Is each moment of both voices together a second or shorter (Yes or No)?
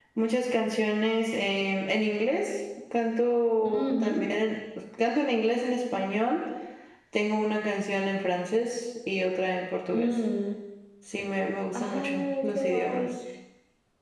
No